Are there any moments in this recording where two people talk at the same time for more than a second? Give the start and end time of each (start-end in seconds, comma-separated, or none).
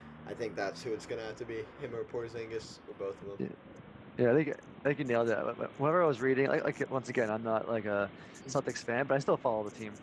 none